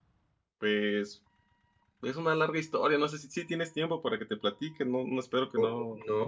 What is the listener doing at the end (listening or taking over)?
taking over